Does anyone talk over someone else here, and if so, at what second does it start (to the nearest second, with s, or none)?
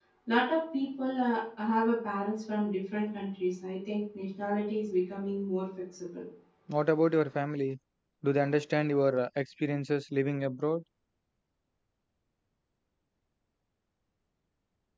none